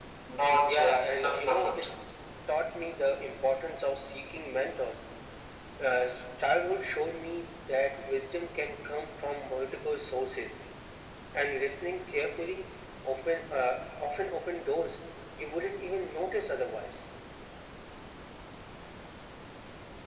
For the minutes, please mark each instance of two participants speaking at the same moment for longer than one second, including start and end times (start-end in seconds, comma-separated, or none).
0.6-1.8